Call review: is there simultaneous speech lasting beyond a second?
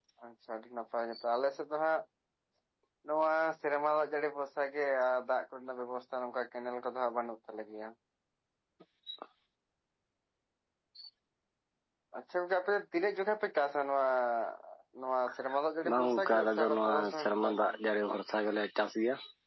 Yes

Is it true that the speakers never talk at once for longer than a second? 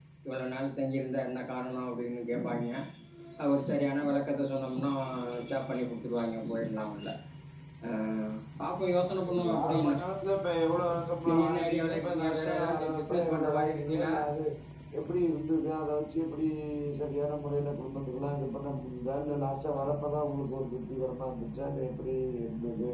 No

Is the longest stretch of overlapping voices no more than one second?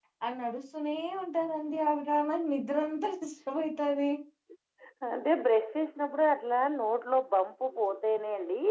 Yes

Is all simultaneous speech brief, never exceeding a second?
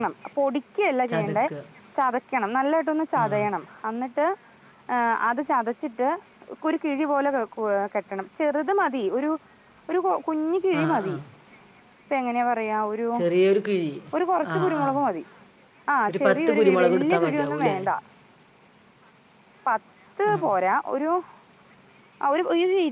No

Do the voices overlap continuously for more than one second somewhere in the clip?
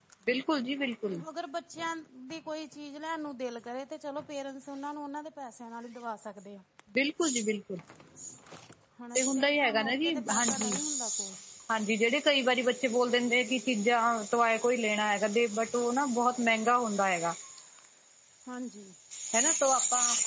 Yes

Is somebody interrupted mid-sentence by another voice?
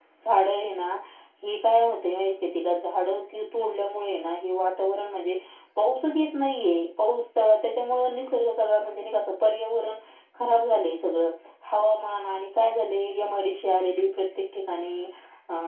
No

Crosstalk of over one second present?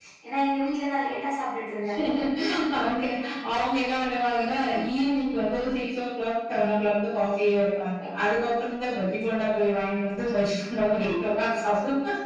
No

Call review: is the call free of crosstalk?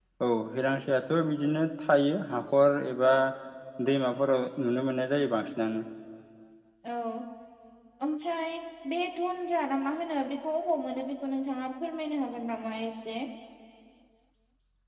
Yes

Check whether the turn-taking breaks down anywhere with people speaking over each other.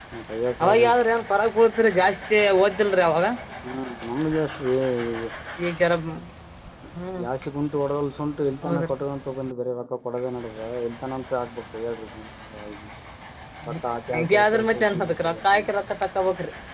Yes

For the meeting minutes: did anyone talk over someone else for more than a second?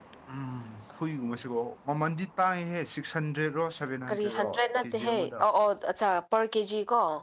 Yes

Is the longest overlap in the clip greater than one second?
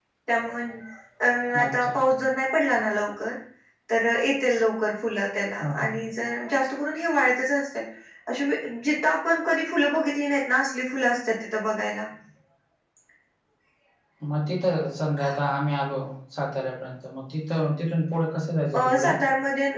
No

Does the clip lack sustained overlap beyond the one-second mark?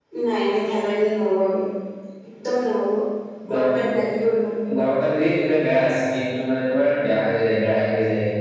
Yes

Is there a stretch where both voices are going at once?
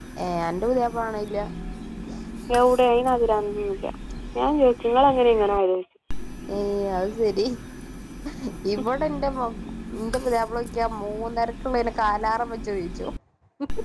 No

